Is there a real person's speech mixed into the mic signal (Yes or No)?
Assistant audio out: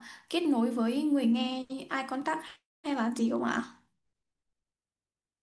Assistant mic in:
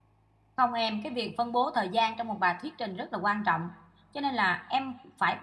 Yes